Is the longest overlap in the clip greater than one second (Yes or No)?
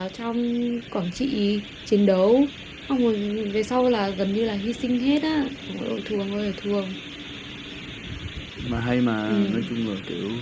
No